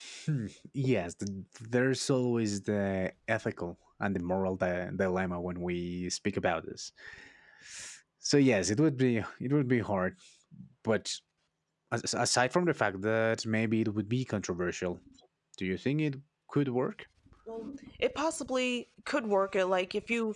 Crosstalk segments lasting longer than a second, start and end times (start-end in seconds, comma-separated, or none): none